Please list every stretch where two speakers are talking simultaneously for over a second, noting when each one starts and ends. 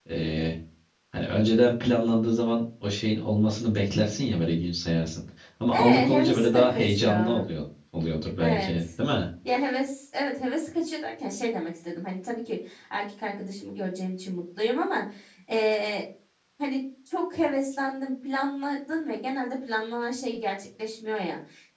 5.7-7.5

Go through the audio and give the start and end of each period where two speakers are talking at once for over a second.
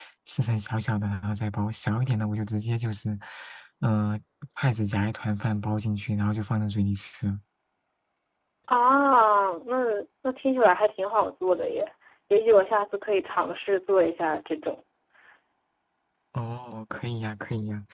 none

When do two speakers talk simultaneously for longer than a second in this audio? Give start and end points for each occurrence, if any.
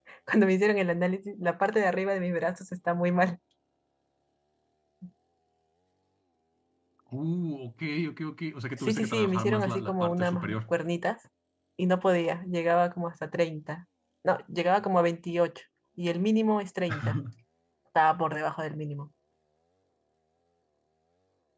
8.8-10.6

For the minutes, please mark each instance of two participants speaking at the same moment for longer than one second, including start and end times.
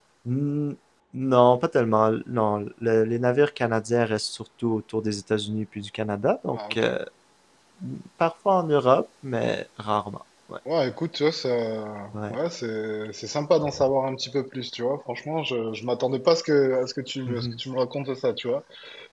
none

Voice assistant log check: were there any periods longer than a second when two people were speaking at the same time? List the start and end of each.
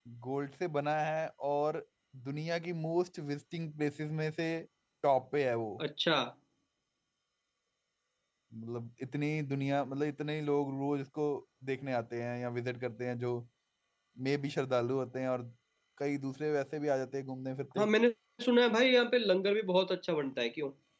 none

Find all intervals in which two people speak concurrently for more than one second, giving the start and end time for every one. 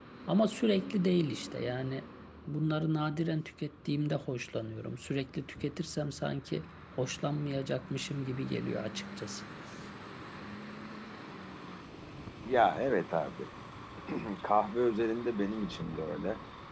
none

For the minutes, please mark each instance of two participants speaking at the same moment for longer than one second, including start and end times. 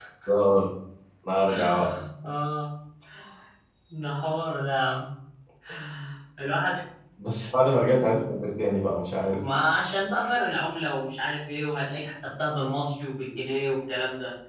none

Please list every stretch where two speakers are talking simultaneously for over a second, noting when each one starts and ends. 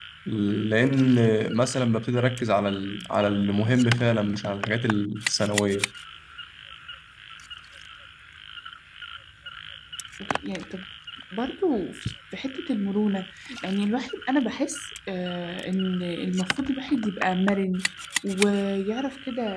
none

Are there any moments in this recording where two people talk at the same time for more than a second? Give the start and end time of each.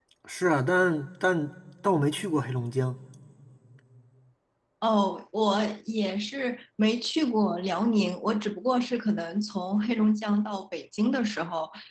none

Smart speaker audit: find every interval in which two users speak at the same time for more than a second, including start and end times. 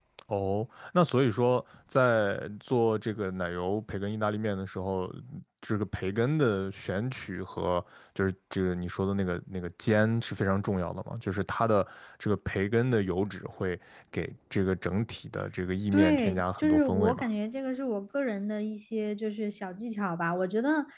15.9-17.2

